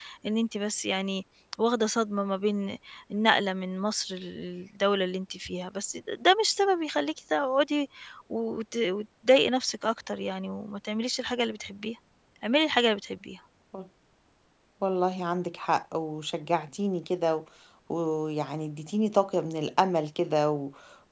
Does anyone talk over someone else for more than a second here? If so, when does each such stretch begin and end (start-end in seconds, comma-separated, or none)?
none